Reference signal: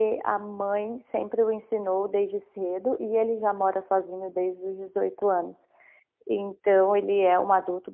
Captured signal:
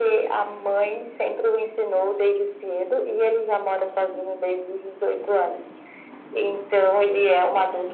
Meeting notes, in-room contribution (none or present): none